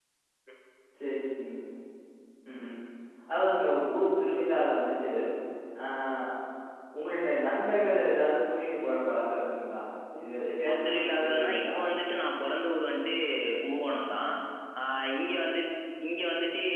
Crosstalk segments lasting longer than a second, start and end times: 10.2-11.7

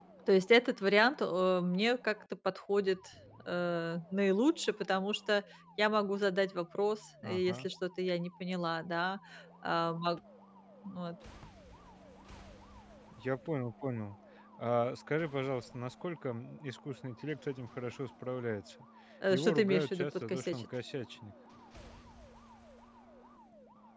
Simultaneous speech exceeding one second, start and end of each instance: 19.3-20.6

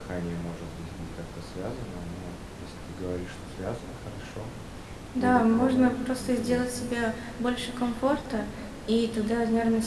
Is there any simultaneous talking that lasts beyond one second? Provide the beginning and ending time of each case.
5.2-6.9

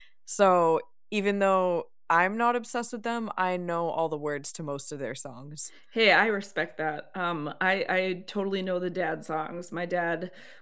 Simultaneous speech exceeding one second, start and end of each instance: none

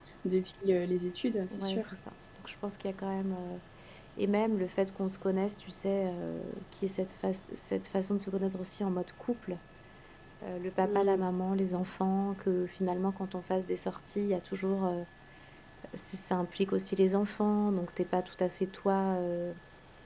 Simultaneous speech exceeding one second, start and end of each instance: none

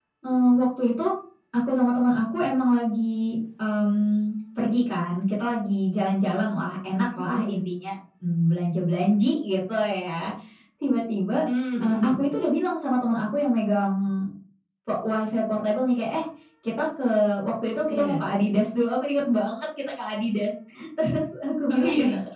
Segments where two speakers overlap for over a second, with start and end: none

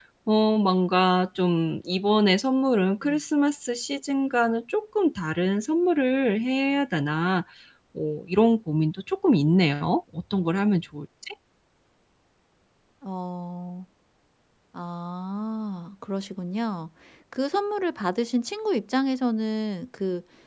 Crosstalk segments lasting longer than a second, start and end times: none

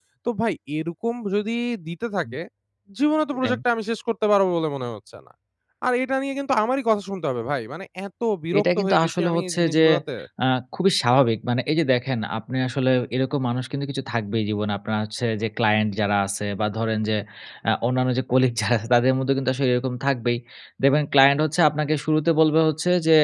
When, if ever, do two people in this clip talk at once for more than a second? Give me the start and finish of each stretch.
8.6-9.8

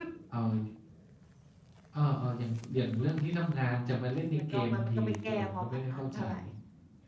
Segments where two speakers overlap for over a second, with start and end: 4.4-6.2

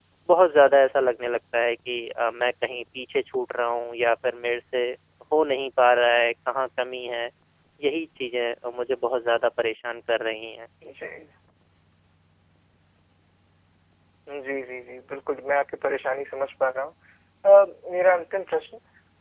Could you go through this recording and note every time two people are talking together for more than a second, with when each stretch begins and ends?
none

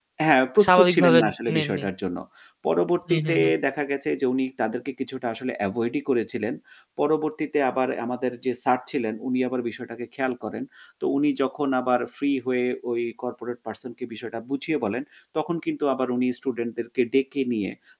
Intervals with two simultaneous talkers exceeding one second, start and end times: 0.6-1.8

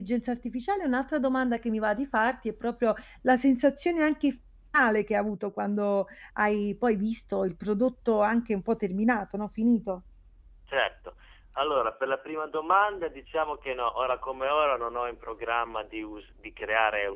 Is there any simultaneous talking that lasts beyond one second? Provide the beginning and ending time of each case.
none

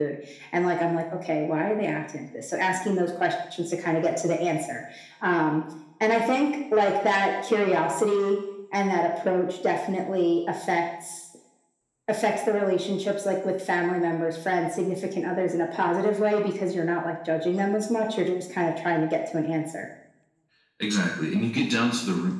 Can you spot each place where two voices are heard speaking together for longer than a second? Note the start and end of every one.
none

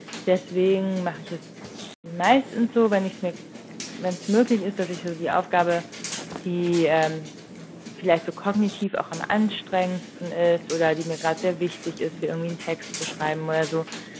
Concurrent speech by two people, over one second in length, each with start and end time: none

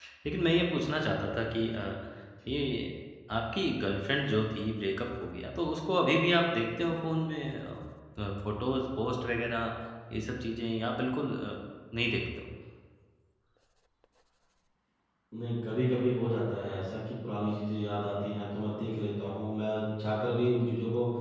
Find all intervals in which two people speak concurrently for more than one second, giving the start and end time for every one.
none

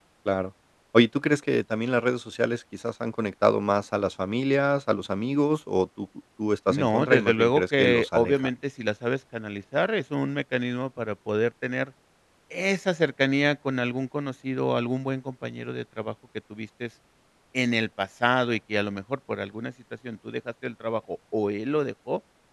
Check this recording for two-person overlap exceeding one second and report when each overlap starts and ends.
6.7-8.4

